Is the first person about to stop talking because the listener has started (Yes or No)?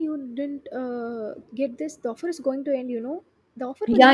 Yes